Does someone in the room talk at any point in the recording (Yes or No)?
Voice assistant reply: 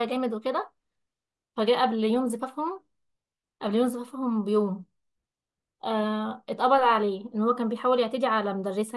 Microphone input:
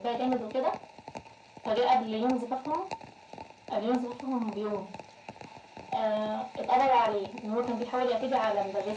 No